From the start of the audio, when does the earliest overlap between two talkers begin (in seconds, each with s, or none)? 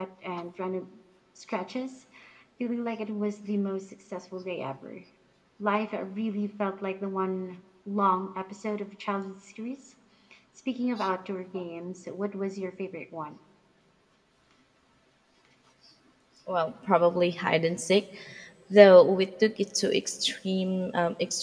none